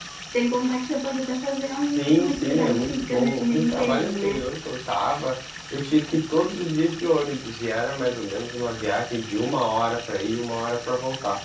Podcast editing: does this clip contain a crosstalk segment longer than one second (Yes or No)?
Yes